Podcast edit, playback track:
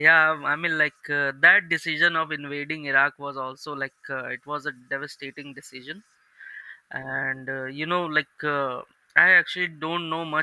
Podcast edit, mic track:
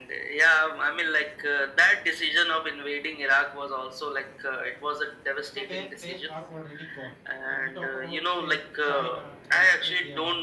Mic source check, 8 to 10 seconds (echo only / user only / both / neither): both